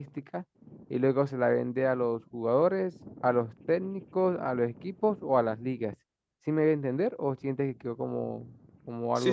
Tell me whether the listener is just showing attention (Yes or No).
No